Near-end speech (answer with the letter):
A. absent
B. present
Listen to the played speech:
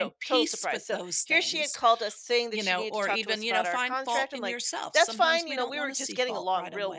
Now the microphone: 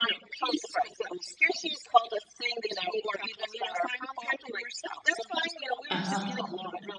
B